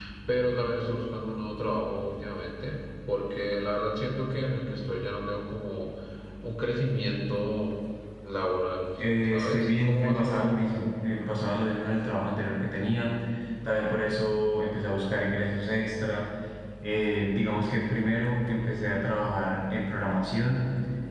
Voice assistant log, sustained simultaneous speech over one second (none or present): present